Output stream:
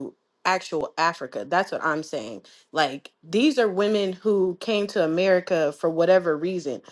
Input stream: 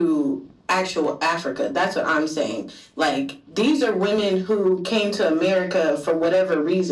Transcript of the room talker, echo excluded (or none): none